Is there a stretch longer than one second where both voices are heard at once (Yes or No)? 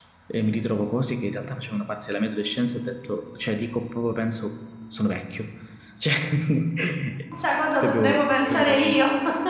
Yes